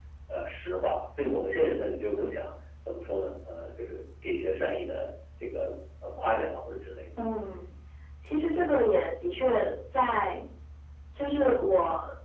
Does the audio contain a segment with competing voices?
No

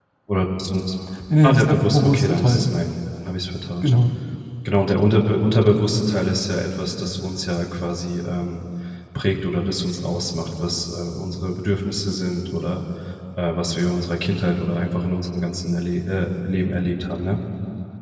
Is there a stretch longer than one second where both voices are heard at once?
Yes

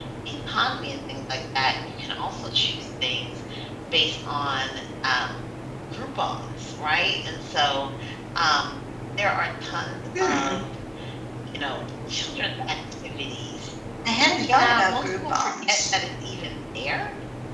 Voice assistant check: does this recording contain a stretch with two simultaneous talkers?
Yes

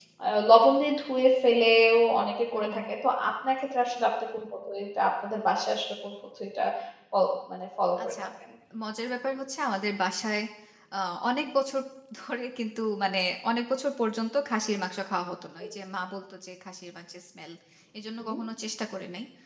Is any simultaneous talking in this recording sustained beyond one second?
No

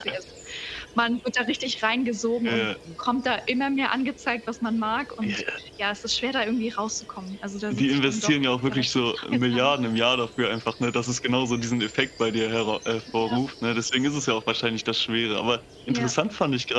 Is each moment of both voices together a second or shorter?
No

